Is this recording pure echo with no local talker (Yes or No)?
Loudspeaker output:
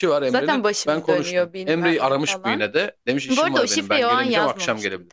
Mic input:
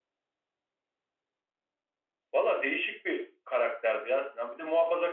No